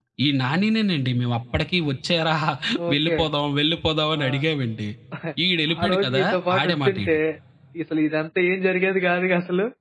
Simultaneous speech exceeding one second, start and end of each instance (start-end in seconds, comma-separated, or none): 5.8-7.2